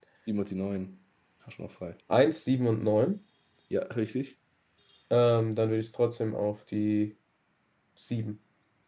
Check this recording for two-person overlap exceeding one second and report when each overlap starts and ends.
none

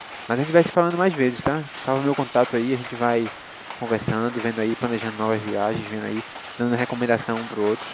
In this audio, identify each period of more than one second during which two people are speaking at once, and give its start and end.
none

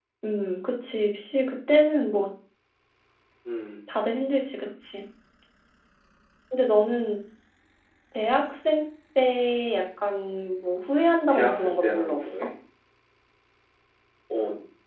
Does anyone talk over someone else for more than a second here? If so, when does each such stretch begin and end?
11.3-12.5

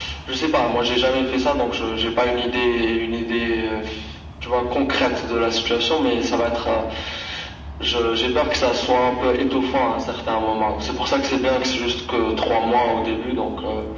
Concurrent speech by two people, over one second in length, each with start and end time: none

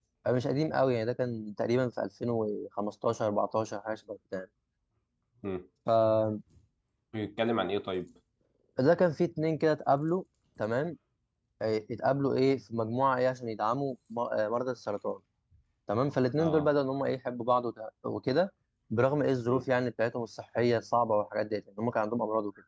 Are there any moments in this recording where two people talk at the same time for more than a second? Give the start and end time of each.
none

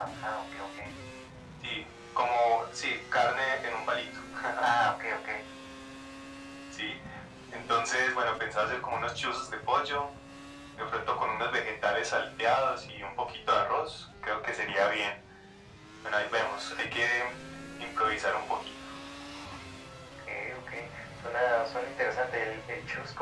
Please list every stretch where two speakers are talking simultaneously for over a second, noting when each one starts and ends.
none

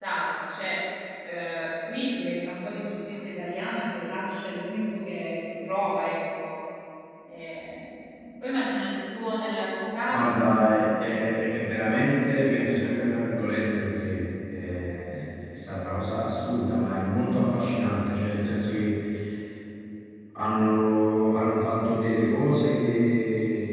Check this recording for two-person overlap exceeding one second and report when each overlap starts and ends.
10.1-13.2

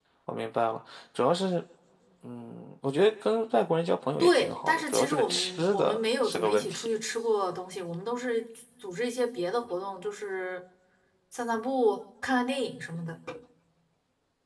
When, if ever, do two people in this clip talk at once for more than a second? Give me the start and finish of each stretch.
4.2-6.9

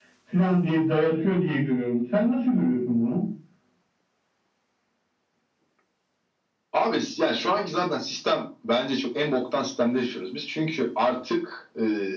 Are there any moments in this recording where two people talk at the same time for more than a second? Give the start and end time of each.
none

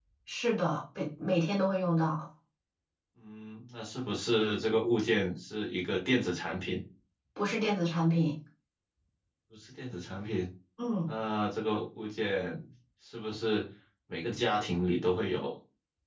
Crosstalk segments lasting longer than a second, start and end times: none

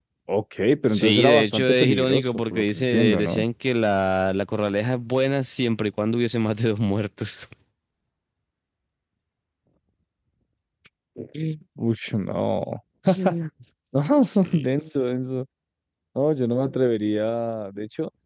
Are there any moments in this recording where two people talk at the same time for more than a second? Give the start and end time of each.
0.9-3.4

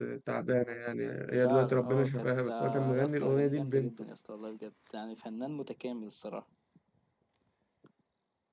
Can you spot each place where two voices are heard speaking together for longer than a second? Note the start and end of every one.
1.3-3.9

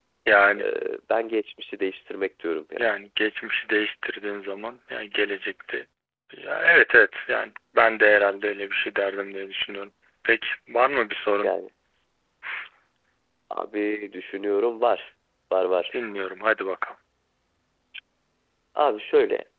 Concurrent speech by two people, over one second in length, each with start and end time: none

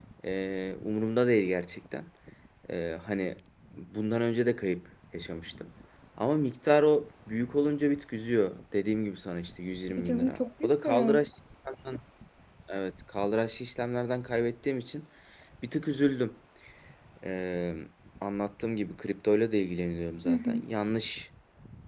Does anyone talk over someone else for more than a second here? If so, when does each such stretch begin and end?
9.9-11.2

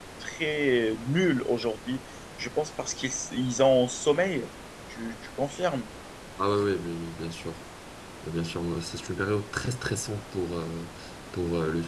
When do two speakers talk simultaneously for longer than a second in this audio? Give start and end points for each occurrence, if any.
none

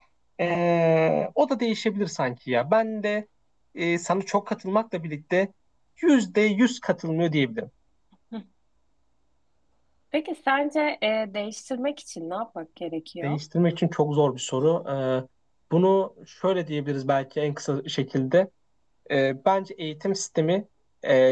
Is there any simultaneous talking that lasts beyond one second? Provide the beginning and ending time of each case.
none

